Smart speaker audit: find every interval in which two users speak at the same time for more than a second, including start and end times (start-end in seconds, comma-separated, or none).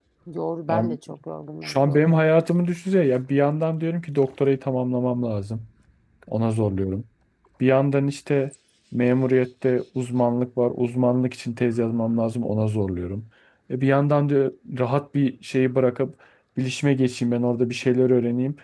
none